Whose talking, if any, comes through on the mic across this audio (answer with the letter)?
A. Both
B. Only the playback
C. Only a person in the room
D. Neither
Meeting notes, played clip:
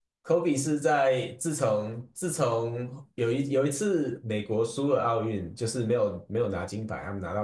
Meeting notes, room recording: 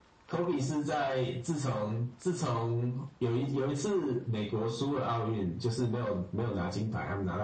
B